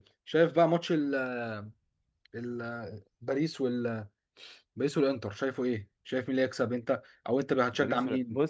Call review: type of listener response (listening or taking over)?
taking over